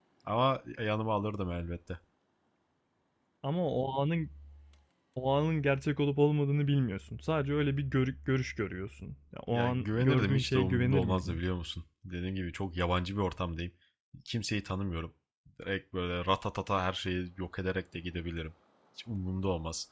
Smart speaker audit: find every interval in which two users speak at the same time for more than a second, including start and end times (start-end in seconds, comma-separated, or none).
9.5-11.4